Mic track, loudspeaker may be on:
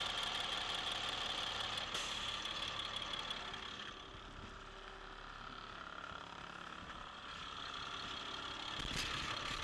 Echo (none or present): none